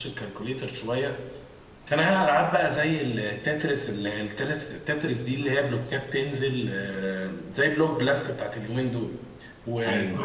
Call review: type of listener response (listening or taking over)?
listening